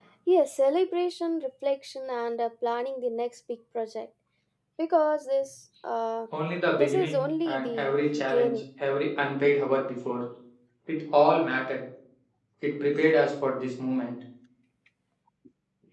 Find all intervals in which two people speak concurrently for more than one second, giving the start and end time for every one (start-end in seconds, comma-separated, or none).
6.7-8.6